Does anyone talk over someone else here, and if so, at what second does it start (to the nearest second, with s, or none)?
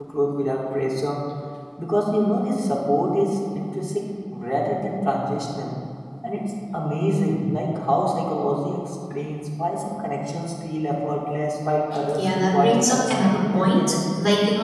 12 s